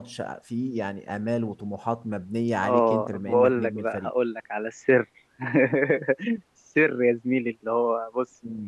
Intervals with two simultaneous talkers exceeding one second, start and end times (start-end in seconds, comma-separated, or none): 2.6-4.1